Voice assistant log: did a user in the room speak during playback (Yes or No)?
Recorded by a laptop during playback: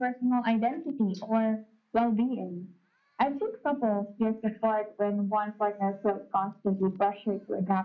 No